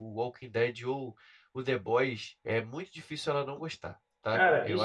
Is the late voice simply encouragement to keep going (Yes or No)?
No